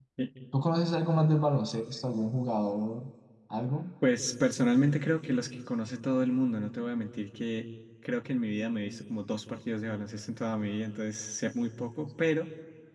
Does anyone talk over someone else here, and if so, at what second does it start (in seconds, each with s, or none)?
none